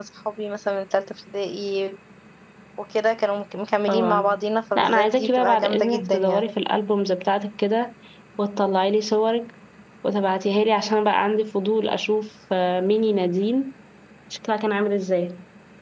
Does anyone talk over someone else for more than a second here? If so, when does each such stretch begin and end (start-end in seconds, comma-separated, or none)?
4.8-6.5